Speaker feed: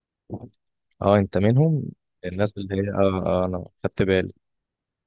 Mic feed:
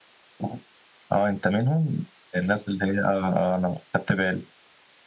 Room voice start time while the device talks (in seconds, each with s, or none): none